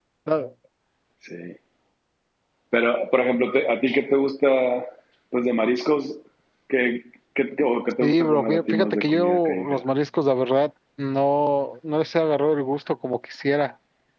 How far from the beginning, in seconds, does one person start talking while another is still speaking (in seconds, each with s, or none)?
8.0 s